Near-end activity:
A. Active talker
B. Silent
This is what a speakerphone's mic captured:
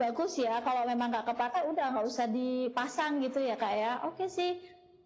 B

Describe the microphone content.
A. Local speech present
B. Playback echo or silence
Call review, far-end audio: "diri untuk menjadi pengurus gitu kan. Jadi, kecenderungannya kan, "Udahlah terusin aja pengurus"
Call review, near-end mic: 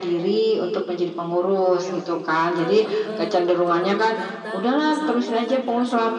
A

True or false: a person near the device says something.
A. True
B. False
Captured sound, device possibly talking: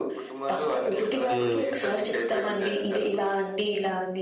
A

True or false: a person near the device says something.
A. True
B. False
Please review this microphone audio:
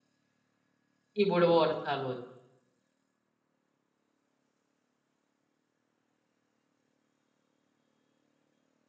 A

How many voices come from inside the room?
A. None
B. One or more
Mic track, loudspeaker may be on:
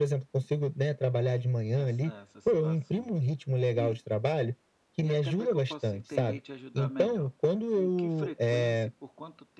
B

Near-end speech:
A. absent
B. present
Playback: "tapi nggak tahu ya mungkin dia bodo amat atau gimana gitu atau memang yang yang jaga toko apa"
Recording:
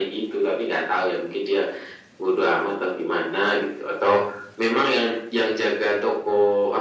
A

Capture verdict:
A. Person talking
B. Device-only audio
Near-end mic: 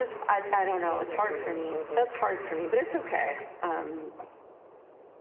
A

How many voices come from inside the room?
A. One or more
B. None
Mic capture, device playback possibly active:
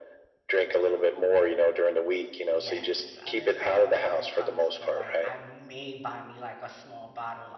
A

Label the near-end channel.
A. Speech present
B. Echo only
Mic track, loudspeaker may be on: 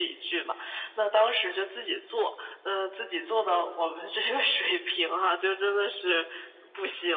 B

